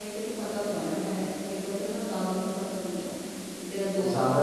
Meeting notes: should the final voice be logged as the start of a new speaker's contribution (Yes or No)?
No